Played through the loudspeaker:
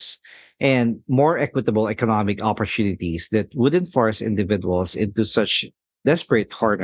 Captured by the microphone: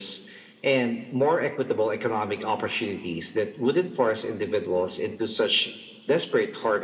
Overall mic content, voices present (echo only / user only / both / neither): echo only